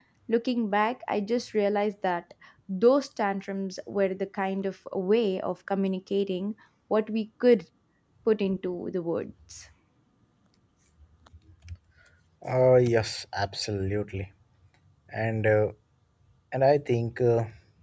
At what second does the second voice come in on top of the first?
none

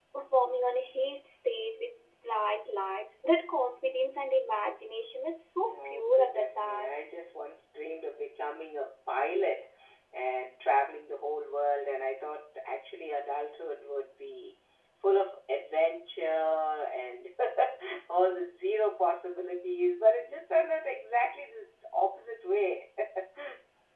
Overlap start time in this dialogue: 6 s

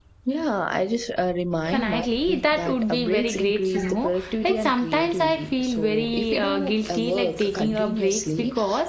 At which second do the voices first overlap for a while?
2 s

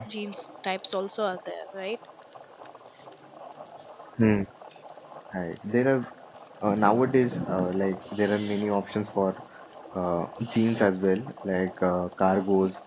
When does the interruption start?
none

